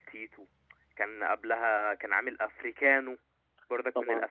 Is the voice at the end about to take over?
No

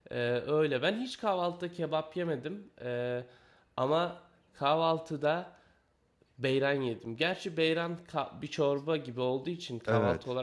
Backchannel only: No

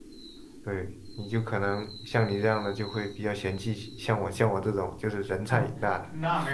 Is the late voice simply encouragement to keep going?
No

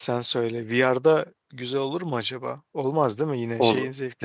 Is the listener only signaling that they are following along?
No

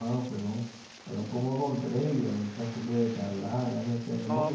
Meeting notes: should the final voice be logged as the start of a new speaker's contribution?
No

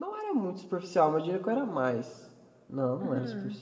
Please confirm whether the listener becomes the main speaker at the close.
No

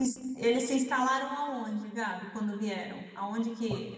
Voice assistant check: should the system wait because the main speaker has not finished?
Yes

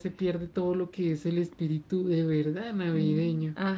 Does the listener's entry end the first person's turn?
Yes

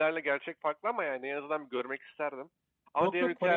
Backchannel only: No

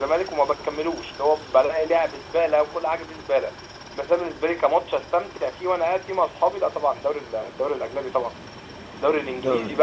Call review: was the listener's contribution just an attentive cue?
Yes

